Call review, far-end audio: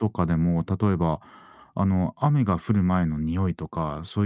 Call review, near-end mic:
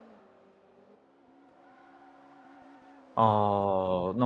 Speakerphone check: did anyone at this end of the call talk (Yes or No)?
Yes